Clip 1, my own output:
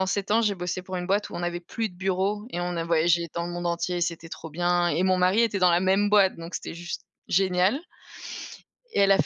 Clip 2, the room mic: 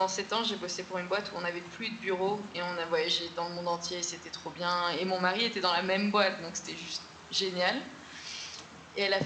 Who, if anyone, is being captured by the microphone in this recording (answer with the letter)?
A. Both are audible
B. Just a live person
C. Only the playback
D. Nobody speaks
C